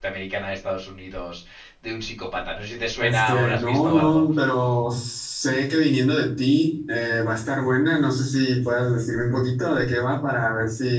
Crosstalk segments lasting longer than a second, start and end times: 3.0-4.2

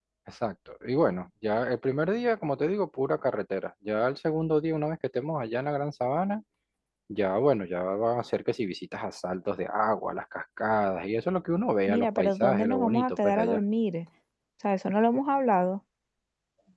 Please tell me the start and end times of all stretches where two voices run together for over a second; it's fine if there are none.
11.9-13.6

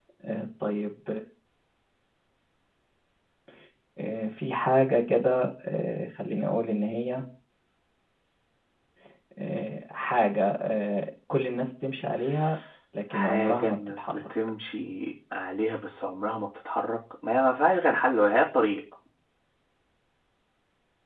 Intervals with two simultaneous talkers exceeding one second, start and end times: 13.1-14.3

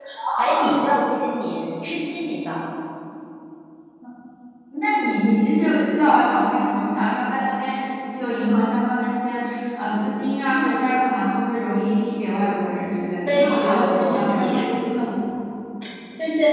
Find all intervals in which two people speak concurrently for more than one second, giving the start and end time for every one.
13.3-14.6

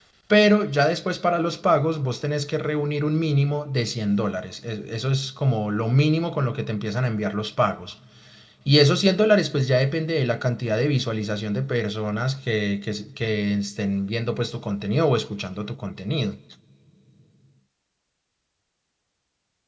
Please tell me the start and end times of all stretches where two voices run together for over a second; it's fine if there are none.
none

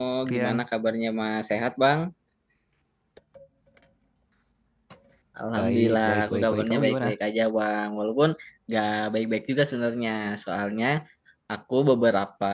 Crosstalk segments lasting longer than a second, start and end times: 5.5-7.1

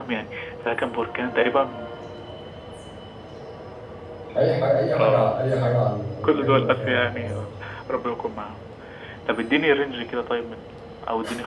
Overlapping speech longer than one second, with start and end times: 6.2-7.5

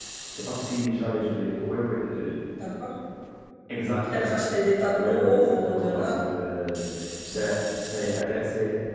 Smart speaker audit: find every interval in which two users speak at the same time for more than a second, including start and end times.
5.0-6.2

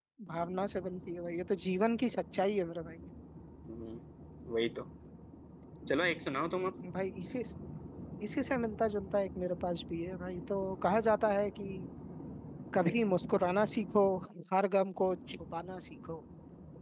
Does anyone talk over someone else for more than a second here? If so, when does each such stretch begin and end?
none

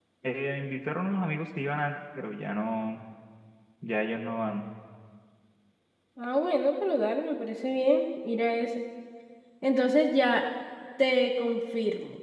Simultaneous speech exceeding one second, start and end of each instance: none

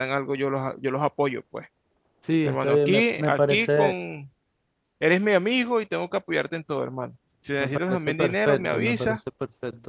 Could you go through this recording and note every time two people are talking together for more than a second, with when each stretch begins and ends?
2.4-3.9, 7.6-9.2

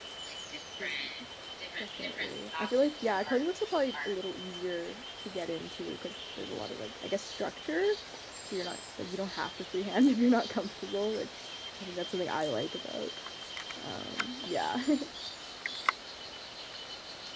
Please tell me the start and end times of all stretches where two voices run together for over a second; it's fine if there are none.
2.0-3.4

